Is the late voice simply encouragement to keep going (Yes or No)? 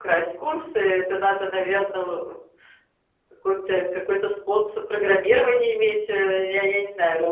No